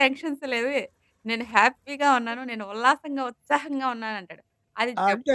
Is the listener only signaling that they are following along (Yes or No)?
Yes